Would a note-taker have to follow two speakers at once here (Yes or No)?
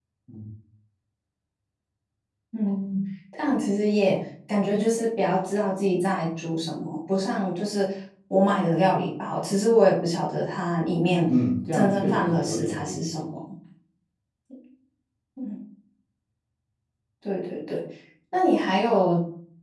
Yes